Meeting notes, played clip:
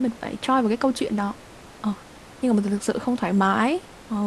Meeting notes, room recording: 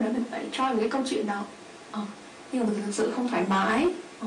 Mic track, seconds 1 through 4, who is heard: echo only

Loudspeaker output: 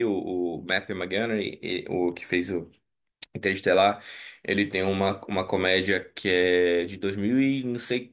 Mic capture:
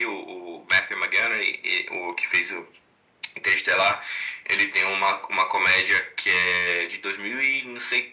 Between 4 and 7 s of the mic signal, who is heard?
echo only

